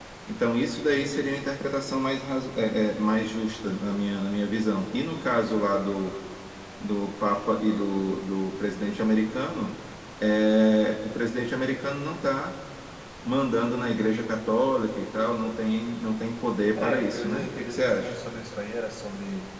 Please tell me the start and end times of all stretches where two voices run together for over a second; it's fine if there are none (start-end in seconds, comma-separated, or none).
16.8-18.1